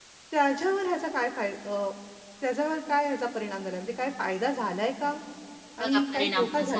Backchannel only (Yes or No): No